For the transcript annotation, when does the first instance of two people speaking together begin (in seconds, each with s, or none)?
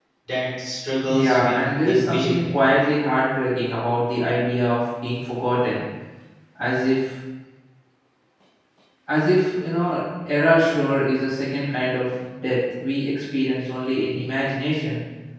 1.1 s